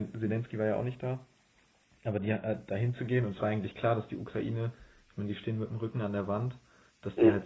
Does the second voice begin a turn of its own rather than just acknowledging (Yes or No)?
No